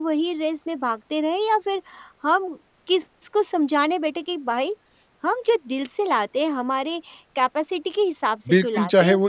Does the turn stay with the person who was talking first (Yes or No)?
No